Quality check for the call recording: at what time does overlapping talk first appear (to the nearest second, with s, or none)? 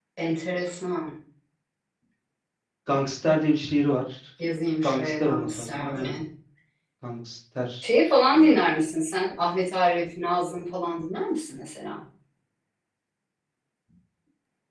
5 s